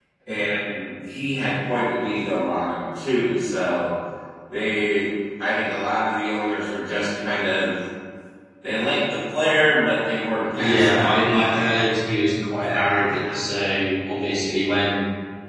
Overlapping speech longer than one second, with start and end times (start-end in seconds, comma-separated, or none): 10.4-11.8